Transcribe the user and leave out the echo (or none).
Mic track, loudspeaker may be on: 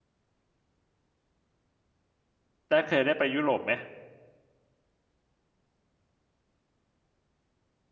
แต่เคยได้ไปยุโรปไหม